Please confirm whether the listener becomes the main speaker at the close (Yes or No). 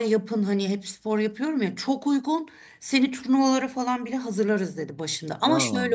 No